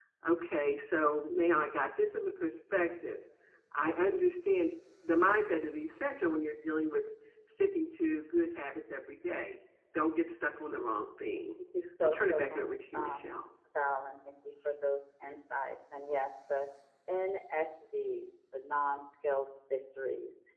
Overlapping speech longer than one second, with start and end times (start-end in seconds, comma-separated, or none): 12.0-13.4